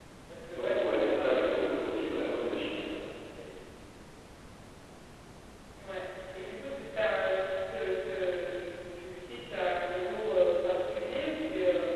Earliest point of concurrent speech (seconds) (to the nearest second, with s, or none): 1 s